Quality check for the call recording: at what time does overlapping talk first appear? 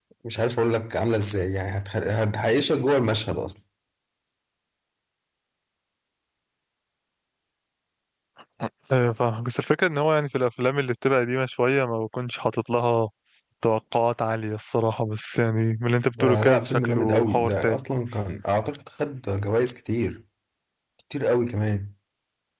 16.1 s

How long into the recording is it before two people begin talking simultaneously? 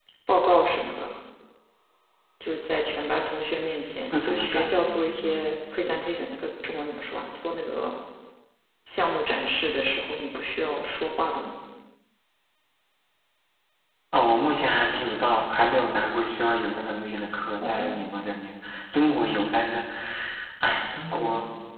4.1 s

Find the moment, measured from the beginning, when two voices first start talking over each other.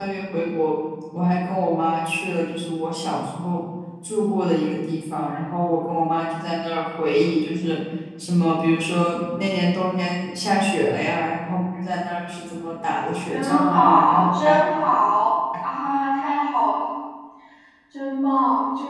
13.3 s

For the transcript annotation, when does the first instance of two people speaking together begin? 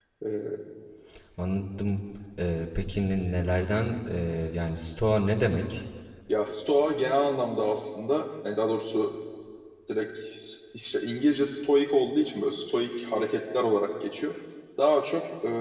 none

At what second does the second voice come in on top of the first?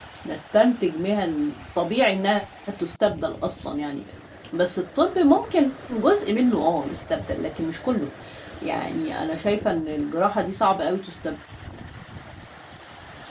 none

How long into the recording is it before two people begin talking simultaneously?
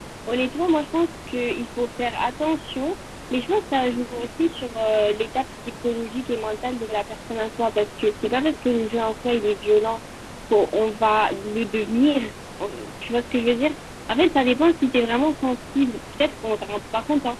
none

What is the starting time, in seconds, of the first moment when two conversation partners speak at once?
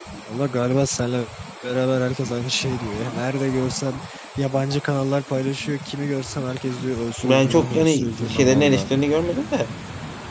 7.2 s

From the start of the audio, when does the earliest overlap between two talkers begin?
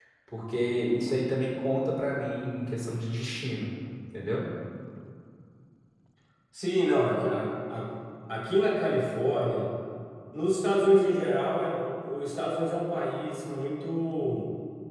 none

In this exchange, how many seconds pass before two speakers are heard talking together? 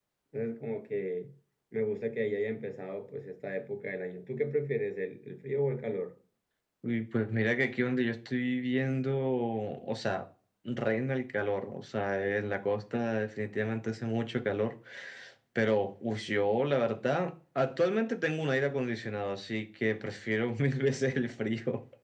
none

